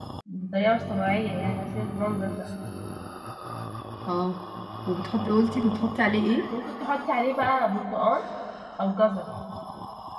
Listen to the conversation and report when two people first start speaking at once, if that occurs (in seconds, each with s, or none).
none